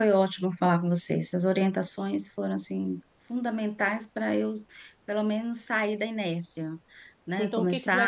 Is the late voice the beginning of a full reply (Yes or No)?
Yes